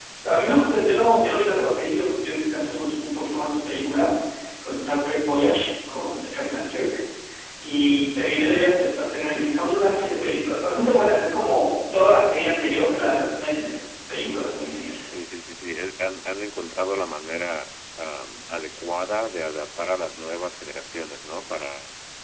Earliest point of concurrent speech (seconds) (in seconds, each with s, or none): none